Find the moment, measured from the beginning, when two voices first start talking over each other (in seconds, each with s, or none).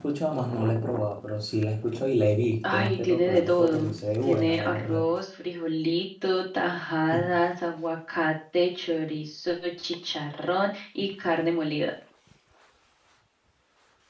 2.7 s